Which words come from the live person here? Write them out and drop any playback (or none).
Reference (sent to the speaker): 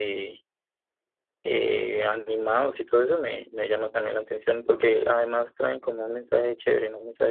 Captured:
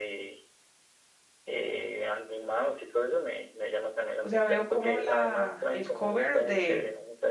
o sea, veo como la, el cover de,